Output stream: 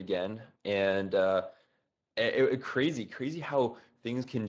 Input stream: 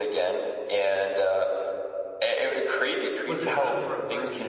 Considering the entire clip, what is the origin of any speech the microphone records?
both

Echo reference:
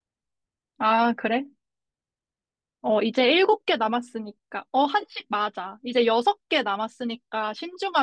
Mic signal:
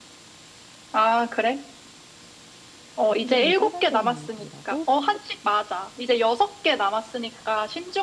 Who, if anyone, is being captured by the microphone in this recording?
both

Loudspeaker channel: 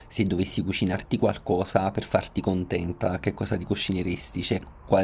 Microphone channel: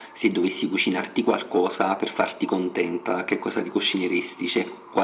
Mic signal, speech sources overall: echo only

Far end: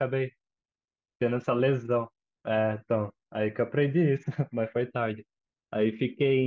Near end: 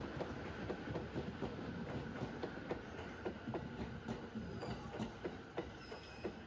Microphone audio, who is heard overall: neither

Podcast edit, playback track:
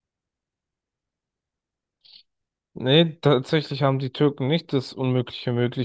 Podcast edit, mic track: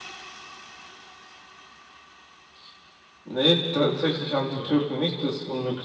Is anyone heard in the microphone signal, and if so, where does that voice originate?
both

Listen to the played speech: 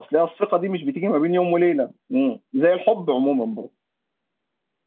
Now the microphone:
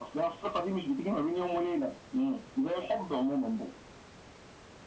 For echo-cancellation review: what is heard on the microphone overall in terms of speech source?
echo only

